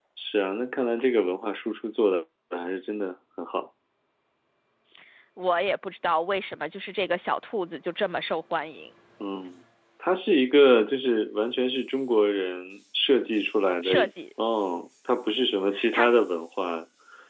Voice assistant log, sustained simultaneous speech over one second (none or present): none